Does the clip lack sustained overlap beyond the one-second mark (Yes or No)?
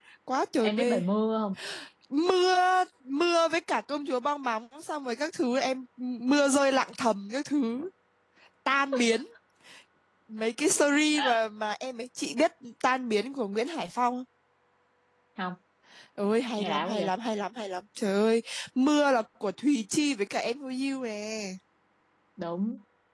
Yes